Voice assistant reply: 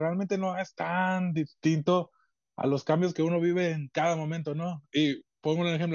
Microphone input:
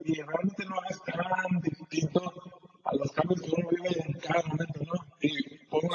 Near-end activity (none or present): none